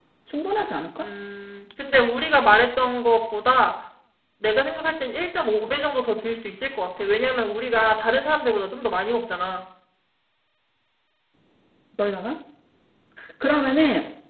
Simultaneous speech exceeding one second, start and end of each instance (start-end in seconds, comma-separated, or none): none